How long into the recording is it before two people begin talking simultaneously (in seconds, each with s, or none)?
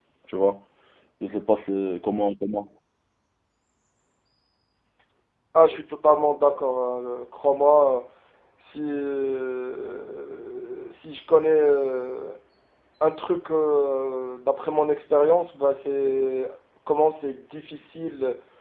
none